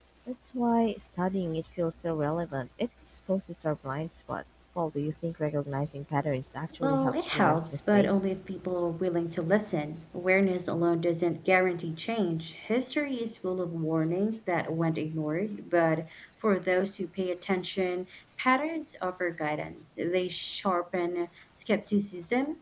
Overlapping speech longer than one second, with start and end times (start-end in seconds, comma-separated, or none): 6.8-8.3